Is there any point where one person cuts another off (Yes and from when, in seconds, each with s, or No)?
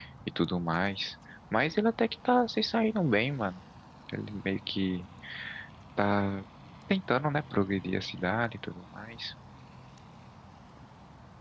No